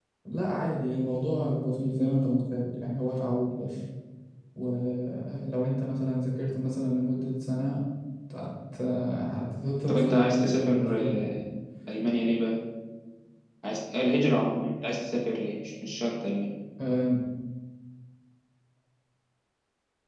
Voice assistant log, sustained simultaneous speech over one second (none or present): present